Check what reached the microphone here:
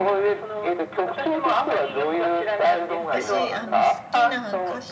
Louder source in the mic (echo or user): echo